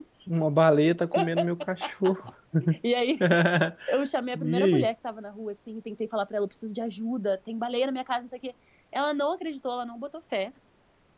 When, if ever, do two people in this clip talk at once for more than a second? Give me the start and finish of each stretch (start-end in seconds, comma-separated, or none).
none